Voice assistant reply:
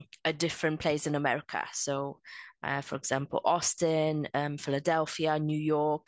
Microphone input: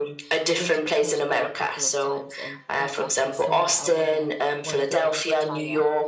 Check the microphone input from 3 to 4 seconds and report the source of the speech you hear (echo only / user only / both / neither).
both